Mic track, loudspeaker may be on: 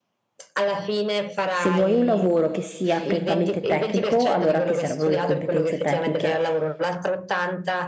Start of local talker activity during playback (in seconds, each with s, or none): 1.5 s